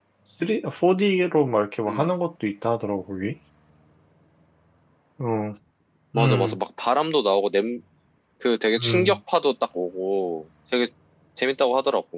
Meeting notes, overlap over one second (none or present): none